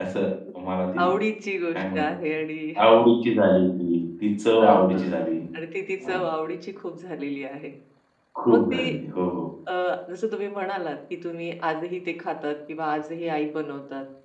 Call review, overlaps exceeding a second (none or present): none